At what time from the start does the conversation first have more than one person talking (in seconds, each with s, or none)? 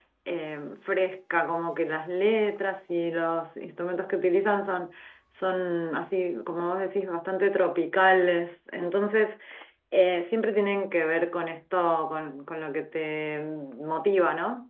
none